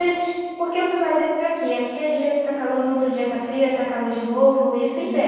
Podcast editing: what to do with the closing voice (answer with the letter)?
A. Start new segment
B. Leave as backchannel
A